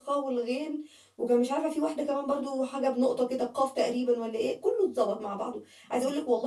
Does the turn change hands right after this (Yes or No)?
No